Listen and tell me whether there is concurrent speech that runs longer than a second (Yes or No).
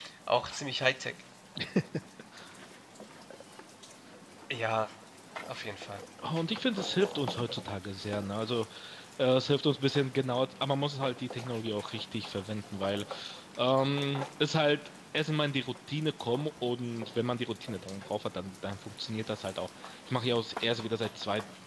No